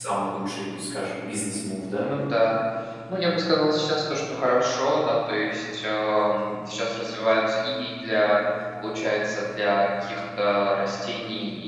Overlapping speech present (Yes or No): No